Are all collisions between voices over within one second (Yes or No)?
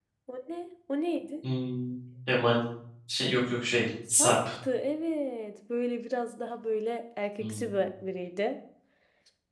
Yes